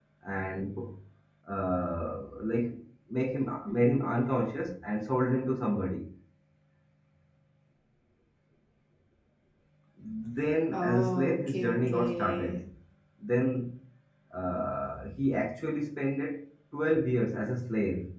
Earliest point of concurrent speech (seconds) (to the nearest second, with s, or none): 11 s